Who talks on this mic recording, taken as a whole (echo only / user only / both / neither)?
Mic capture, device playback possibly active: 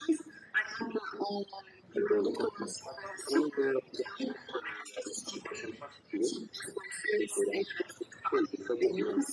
echo only